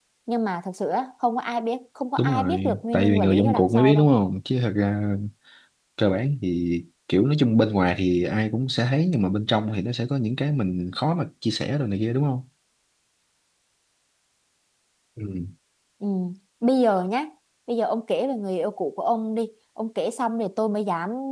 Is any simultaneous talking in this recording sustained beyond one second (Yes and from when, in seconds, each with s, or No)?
Yes, from 2.2 s